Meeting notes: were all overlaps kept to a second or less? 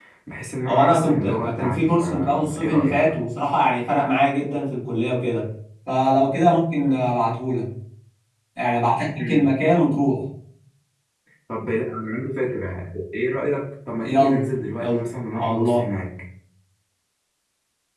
No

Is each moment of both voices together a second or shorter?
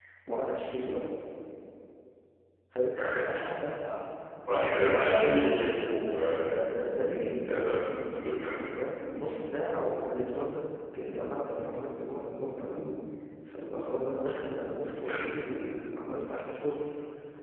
No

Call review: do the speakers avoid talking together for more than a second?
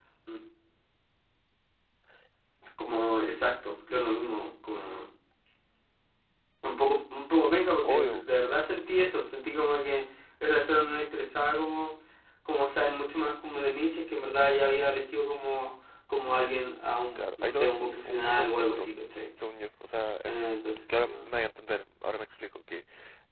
No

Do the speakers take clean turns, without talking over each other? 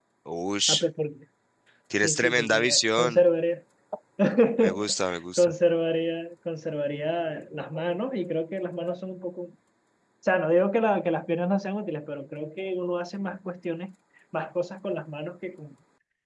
No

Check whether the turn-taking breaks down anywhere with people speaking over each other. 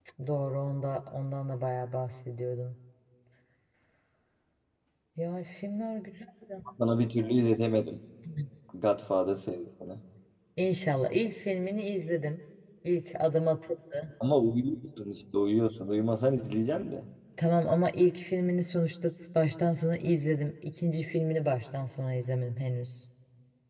No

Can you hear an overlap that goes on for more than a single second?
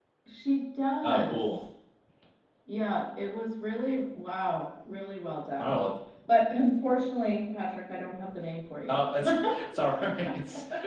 No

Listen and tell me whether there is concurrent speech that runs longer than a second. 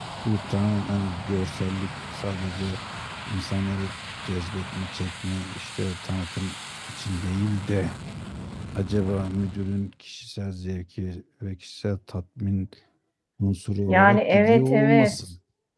Yes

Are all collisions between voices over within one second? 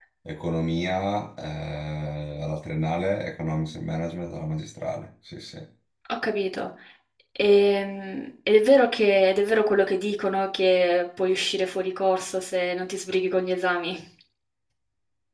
Yes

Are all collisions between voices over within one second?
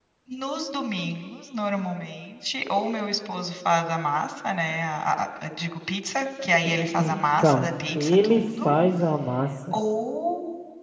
No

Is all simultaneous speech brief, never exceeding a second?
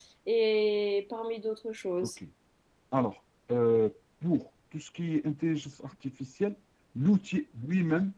Yes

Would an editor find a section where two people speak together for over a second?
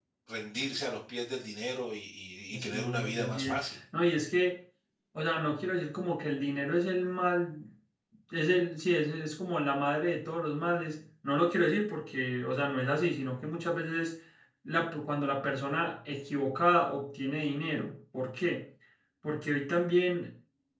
Yes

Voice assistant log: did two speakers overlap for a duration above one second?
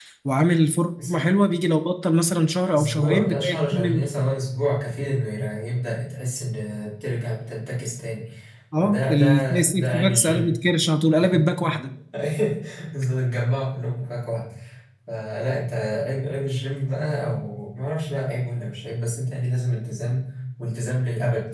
Yes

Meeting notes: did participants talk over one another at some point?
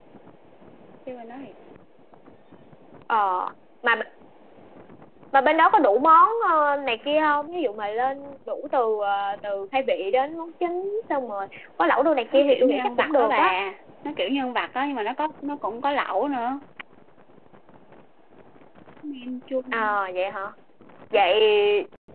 Yes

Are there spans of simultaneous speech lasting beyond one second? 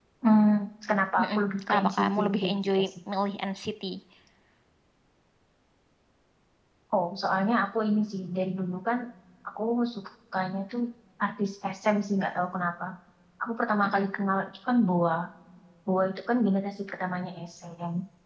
Yes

